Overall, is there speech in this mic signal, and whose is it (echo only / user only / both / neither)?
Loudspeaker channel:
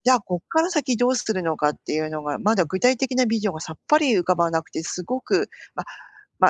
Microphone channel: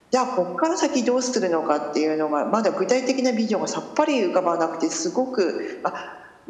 echo only